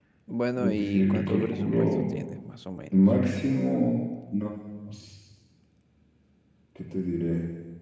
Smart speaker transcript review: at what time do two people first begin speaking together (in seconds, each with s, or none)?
0.5 s